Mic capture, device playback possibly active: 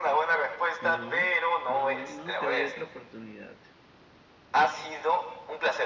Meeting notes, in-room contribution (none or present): present